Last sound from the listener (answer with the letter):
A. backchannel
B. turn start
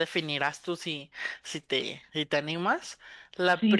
B